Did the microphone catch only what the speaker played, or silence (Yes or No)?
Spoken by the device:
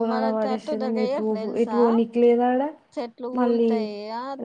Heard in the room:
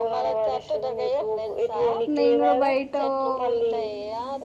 No